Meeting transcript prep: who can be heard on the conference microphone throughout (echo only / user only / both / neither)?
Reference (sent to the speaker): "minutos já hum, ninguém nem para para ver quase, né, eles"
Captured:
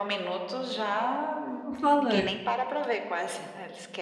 both